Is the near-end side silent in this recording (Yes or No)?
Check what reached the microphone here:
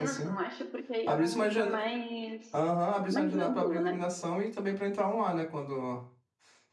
No